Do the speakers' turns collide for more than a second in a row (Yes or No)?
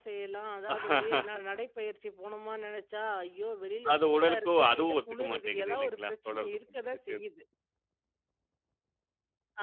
Yes